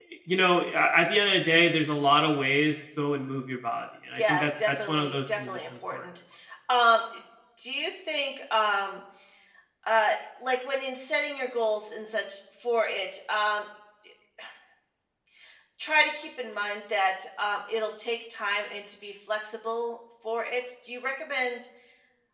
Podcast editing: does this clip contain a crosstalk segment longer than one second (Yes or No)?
Yes